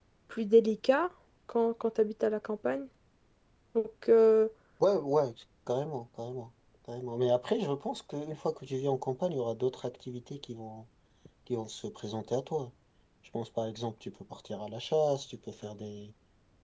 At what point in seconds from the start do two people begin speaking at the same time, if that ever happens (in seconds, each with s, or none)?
none